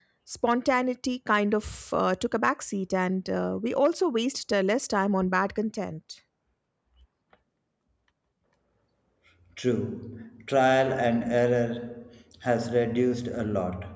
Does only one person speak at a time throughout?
Yes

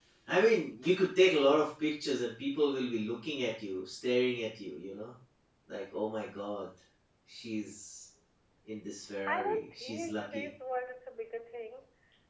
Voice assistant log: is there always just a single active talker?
No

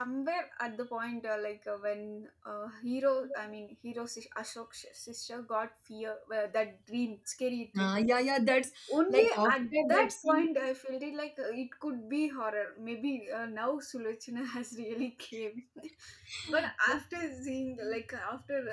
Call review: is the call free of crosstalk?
No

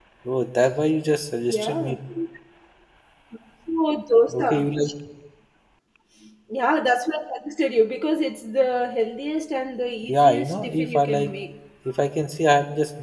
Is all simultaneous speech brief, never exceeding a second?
No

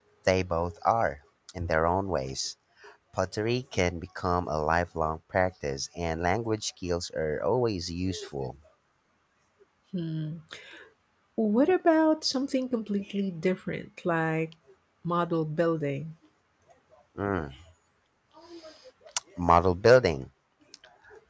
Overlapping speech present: No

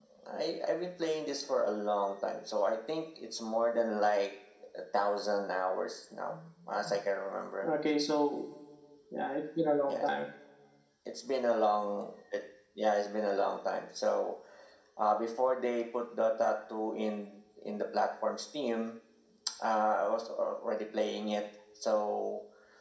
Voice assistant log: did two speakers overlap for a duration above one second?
No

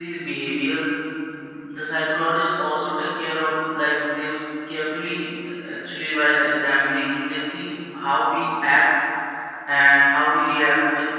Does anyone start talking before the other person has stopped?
No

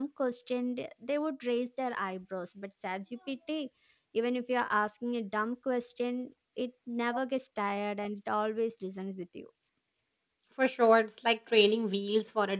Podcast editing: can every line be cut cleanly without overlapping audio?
Yes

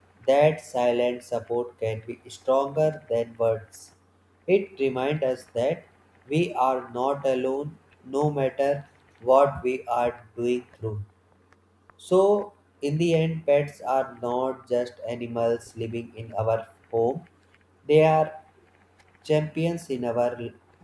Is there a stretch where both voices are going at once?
No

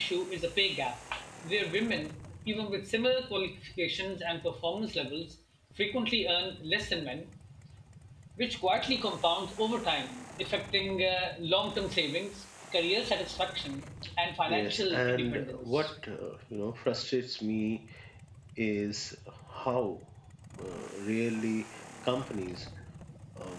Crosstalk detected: Yes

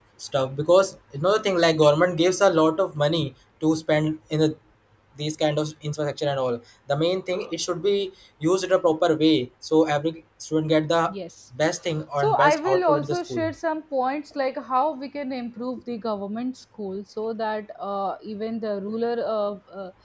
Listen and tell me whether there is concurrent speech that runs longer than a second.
Yes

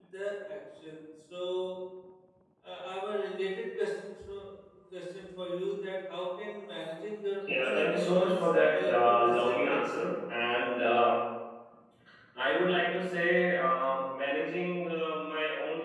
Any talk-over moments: Yes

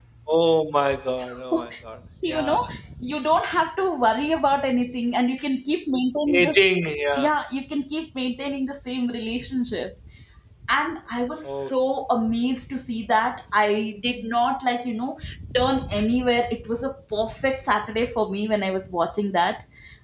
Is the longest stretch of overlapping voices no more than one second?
Yes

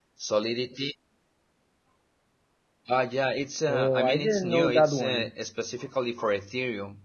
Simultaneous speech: Yes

